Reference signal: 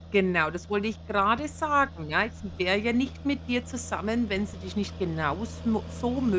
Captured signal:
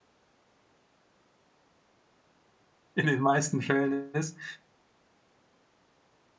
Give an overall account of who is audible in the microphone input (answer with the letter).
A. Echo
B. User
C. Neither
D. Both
B